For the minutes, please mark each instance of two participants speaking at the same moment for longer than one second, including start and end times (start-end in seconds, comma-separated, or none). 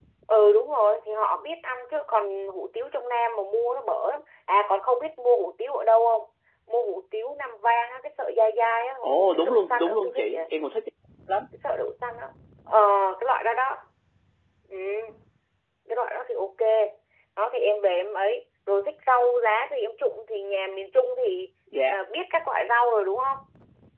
9.0-10.4